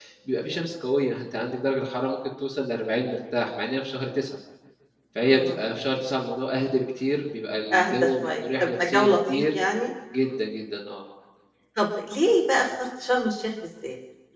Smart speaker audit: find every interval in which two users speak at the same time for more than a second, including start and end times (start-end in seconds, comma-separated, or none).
7.7-9.4